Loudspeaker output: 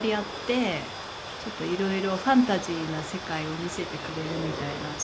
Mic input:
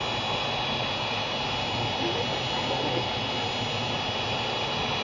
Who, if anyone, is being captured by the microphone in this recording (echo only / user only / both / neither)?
neither